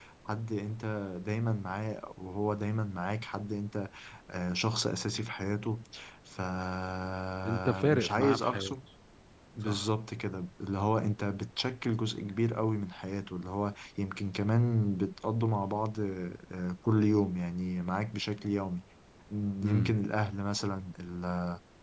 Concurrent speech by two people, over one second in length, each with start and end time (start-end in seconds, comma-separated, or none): 7.4-8.8